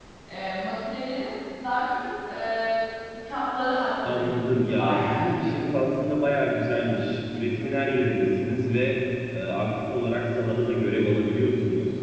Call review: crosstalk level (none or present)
present